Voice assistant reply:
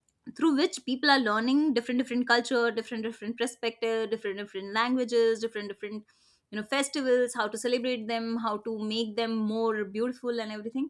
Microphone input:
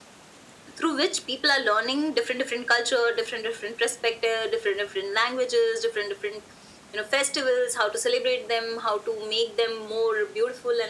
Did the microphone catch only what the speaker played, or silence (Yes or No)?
Yes